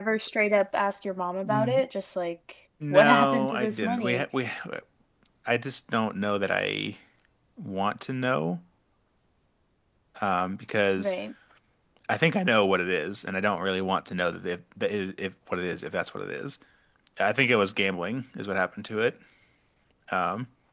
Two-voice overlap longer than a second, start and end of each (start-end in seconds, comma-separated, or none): 2.9-4.2